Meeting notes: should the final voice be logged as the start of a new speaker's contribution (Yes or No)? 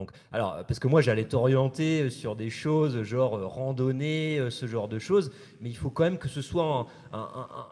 No